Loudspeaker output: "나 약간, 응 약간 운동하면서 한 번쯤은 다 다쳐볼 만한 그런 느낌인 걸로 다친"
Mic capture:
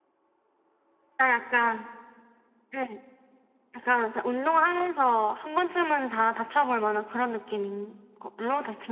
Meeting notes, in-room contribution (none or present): none